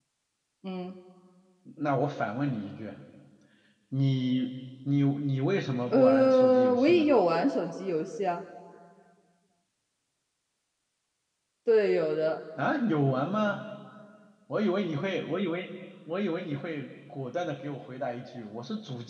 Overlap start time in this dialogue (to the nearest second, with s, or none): 6 s